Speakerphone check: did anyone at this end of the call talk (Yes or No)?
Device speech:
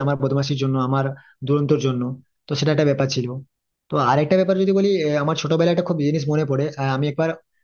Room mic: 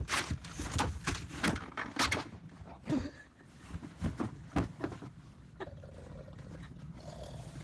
No